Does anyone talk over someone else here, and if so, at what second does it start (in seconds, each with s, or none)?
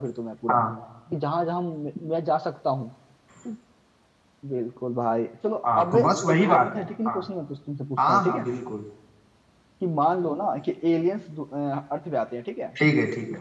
5.7 s